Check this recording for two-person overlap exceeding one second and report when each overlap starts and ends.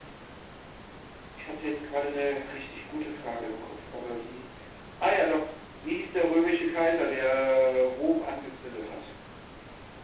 none

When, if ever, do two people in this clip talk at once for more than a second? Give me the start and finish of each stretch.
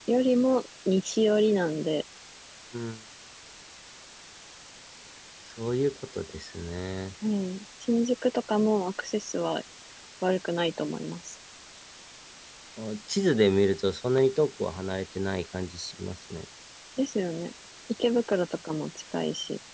none

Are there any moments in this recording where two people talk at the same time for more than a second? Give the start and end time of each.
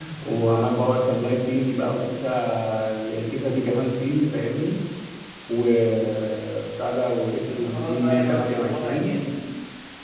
7.5-9.2

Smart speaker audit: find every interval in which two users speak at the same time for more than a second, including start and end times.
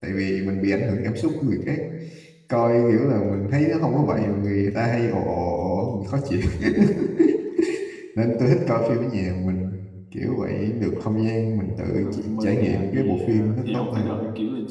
11.9-14.2

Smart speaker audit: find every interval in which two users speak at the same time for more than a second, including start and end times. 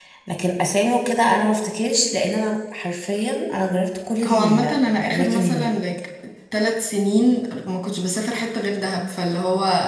4.3-5.7

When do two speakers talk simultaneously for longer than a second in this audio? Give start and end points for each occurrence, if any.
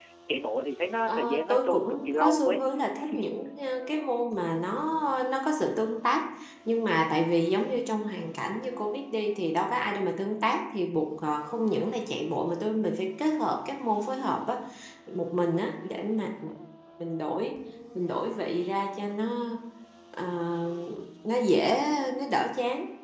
1.1-2.6

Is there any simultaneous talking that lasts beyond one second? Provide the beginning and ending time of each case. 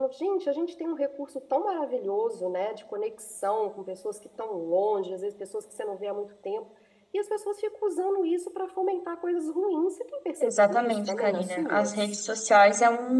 10.4-12.2

